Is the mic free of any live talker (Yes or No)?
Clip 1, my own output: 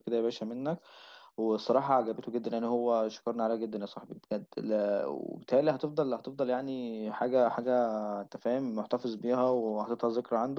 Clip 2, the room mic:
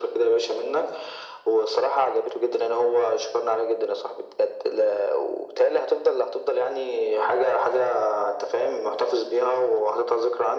Yes